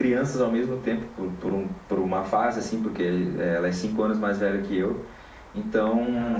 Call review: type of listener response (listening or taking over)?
listening